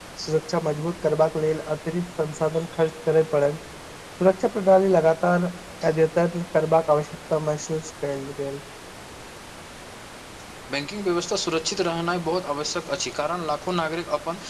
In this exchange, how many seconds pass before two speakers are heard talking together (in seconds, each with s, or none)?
none